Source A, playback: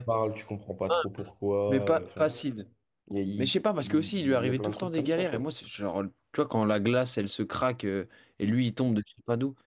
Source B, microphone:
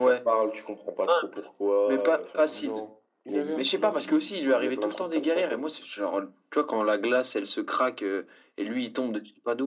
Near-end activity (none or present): present